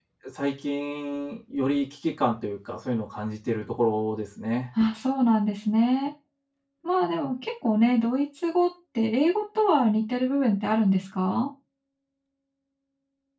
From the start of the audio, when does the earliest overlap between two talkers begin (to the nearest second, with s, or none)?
none